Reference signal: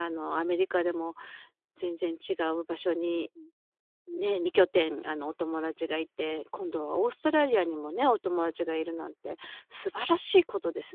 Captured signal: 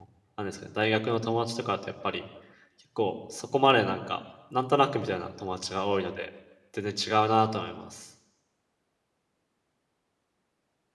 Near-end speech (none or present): present